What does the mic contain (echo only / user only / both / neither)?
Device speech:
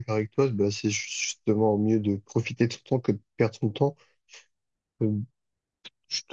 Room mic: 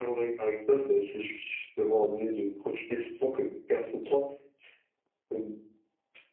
echo only